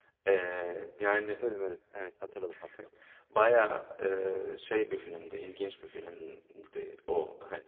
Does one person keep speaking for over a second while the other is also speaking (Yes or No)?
No